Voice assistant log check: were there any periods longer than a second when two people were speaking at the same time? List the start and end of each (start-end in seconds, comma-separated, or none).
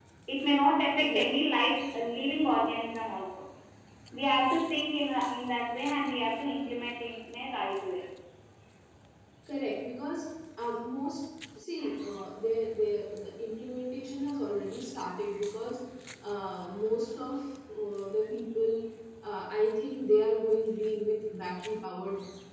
none